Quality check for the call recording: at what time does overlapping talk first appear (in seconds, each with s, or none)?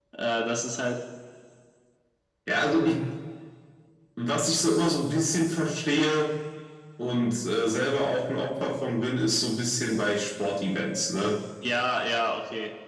none